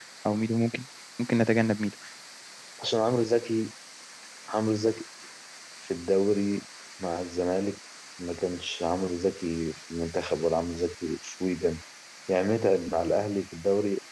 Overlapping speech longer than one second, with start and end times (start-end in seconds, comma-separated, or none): none